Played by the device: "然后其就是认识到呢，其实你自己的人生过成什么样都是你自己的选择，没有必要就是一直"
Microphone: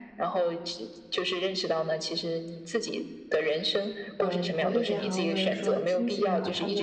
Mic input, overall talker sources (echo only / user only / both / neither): both